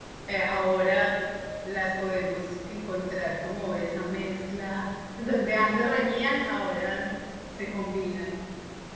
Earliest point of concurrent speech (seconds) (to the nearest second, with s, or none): none